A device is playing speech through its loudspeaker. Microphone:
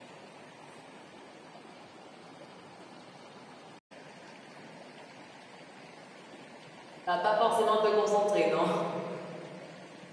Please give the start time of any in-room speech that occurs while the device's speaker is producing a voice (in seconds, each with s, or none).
7.1 s